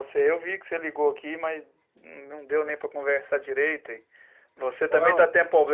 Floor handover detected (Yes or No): No